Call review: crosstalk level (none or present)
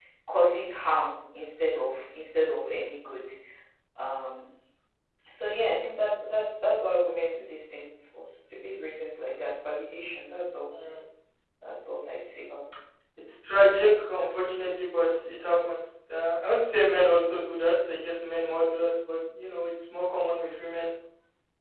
none